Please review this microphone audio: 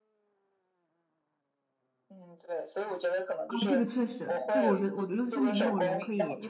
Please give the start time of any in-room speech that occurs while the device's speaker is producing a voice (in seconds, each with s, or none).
3.5 s